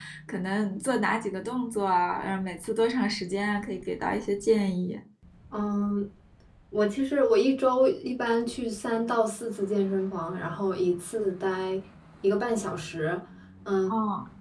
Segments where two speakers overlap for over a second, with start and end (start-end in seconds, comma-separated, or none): none